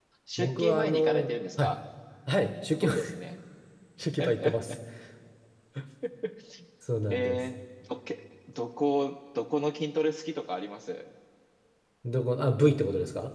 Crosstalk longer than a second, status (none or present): present